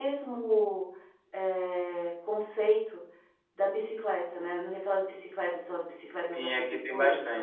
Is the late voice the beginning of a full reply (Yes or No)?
Yes